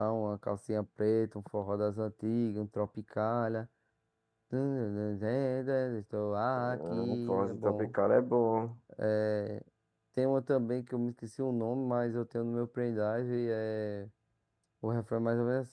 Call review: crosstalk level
present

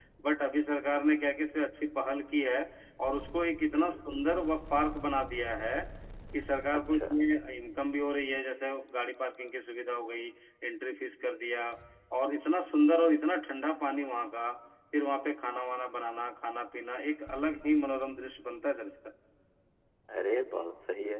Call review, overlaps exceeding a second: none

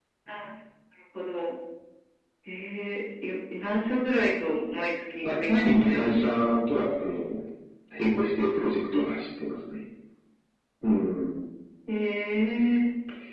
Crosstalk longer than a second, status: present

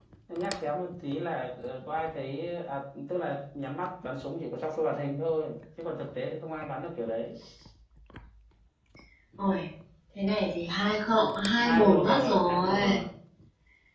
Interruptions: present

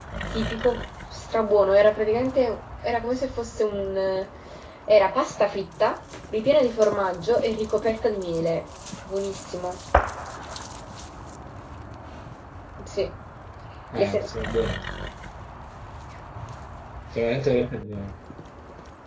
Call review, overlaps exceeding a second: none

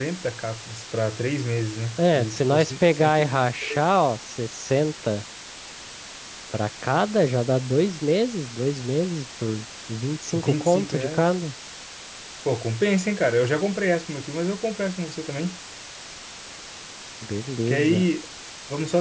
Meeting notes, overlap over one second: present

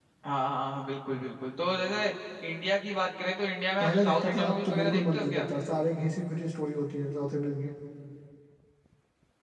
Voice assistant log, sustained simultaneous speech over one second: present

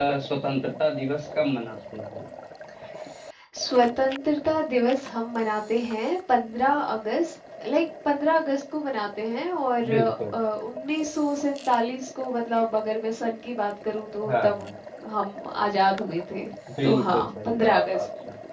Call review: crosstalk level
present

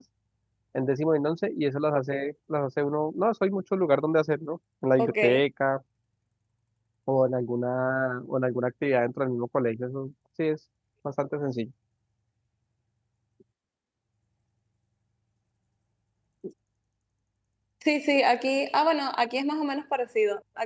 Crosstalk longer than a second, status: none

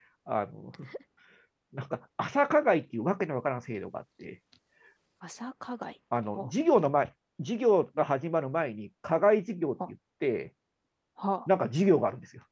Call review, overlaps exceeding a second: none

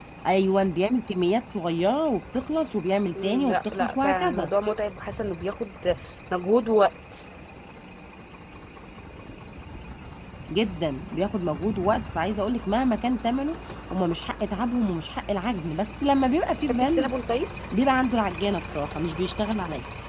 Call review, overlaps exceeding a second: present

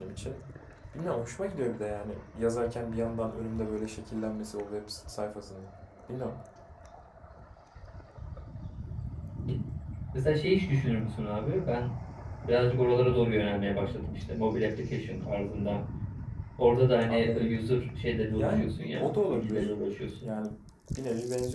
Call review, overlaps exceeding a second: present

